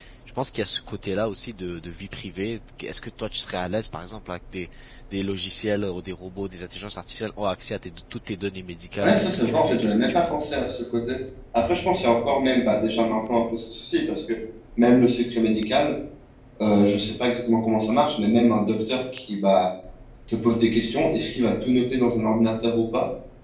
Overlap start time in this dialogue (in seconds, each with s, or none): 9.0 s